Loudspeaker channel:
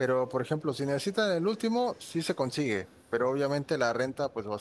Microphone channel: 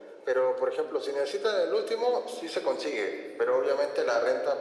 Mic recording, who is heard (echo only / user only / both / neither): echo only